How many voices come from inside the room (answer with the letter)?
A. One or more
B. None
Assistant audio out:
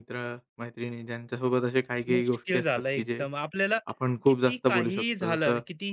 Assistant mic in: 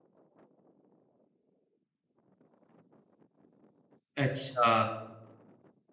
A